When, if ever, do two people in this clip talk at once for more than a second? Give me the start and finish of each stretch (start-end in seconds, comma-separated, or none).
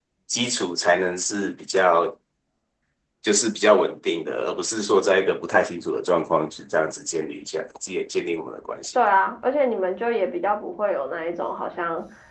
none